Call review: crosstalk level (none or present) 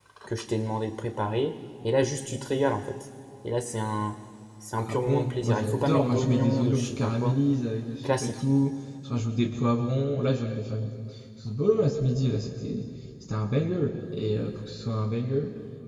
present